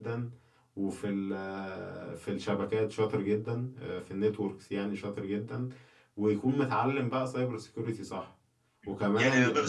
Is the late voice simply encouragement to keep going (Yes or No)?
No